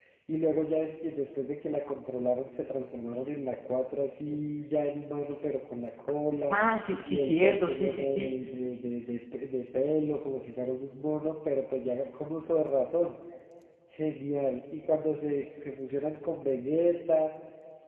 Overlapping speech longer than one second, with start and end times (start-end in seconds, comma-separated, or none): 7.1-8.3